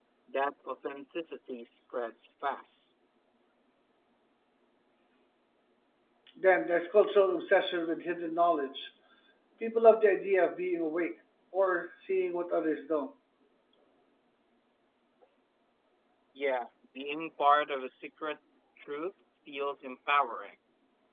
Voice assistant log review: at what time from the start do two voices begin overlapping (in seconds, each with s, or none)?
none